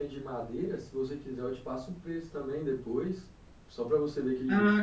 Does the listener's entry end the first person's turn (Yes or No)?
Yes